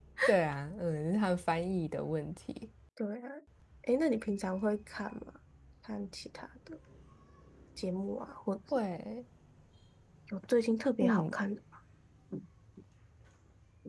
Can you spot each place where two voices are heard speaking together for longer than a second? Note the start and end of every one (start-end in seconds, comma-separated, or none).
none